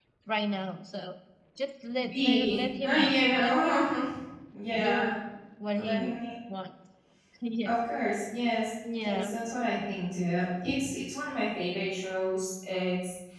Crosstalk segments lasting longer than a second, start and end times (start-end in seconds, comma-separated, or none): 2.1-3.9